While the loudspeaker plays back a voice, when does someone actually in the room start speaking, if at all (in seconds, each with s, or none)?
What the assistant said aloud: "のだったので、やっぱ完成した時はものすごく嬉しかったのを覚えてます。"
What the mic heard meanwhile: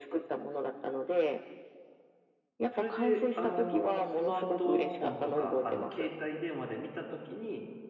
2.7 s